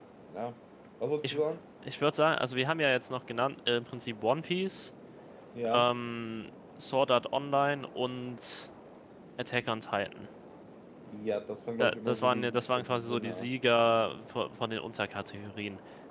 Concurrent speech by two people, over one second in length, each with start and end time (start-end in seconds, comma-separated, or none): 11.8-13.5